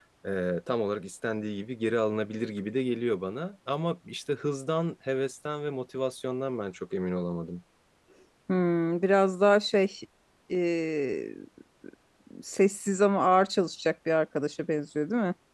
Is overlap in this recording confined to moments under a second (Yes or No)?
Yes